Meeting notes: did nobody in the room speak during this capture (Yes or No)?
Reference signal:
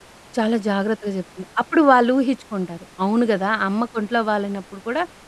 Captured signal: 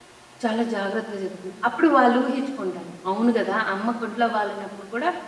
Yes